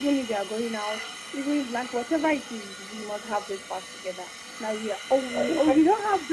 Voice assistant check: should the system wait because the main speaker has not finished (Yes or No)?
Yes